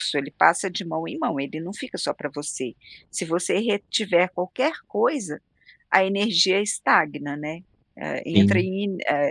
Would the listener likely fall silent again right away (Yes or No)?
Yes